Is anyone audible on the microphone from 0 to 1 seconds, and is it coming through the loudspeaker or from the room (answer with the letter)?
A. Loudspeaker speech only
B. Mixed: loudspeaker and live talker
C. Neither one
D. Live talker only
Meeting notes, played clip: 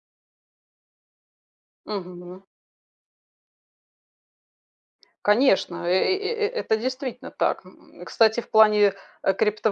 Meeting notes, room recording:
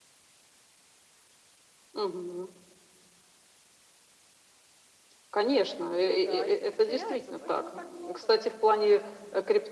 C